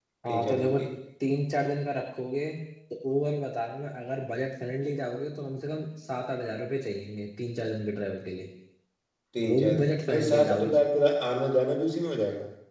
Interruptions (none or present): present